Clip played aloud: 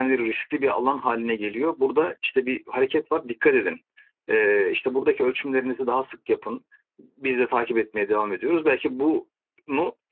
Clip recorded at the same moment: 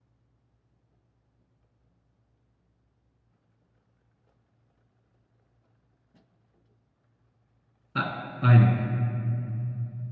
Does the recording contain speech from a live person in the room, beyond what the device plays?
Yes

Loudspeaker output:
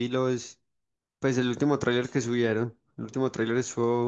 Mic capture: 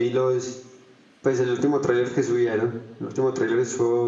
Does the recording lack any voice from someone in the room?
Yes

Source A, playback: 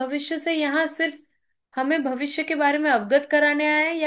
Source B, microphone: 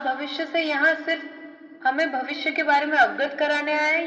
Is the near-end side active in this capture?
No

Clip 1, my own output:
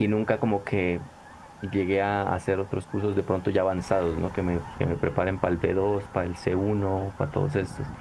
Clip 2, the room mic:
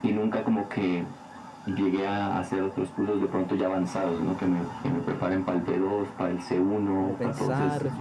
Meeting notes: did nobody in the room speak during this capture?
No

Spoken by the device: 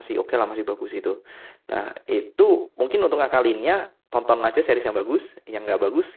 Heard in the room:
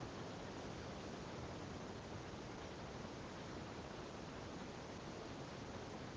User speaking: No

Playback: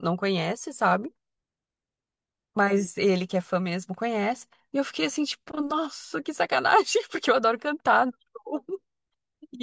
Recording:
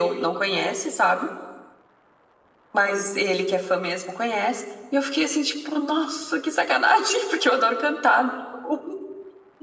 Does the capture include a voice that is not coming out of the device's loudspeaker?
No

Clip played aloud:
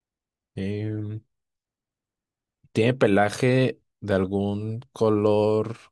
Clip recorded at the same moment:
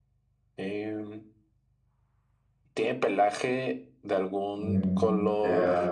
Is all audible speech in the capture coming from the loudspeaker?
No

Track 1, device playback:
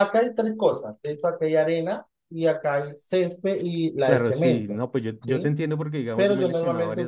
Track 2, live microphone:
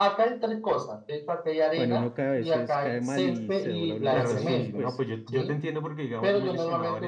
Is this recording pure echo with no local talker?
No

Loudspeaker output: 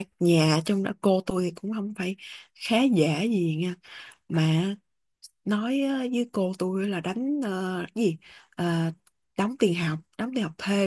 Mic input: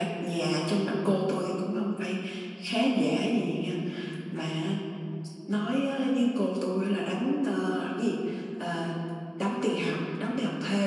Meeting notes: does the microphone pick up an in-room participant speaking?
No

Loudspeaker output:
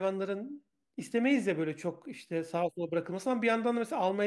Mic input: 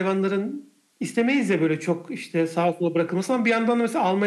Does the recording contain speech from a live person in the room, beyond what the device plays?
No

